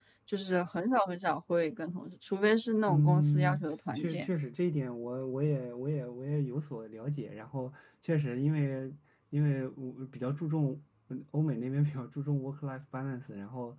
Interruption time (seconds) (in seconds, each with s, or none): 2.9 s